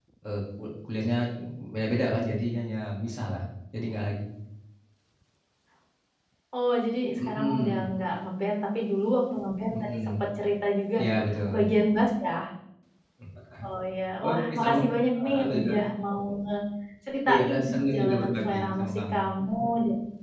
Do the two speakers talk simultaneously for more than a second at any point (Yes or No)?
Yes